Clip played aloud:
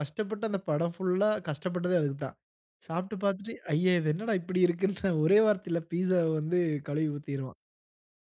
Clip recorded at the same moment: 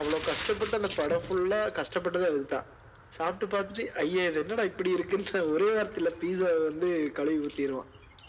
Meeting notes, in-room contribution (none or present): none